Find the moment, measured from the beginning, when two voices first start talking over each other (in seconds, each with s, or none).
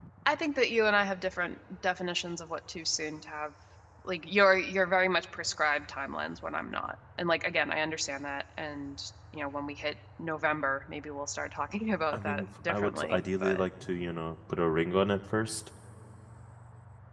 12.1 s